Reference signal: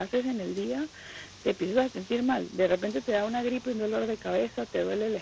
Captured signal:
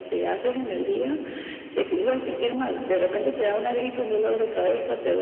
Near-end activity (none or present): none